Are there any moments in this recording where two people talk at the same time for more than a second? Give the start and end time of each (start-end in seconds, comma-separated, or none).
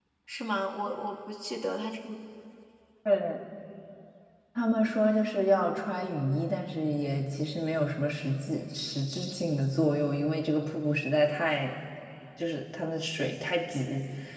none